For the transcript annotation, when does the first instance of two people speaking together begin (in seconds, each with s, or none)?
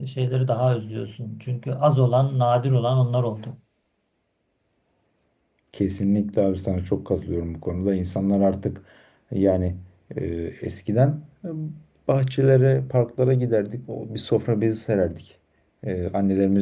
none